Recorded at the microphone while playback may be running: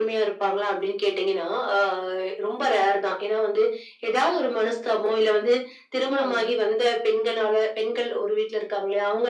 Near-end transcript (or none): ஆமாங்க.